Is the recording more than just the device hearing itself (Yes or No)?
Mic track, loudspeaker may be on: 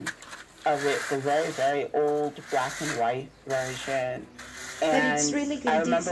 Yes